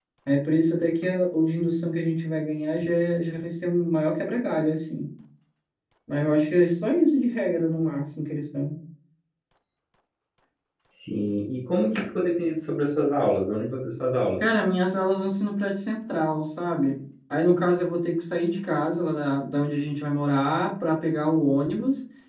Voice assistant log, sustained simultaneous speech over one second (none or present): none